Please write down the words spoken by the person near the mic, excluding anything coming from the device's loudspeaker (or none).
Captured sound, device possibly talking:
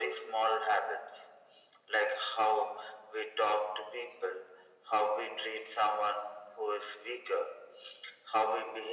none